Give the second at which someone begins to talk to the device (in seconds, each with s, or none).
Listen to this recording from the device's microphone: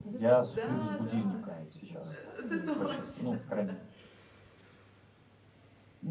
0.4 s